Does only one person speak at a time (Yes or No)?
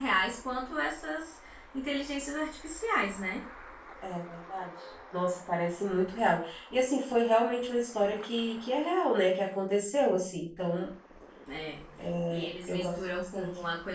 No